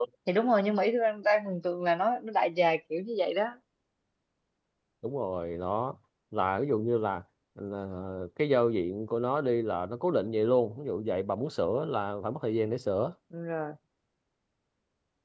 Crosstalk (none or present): none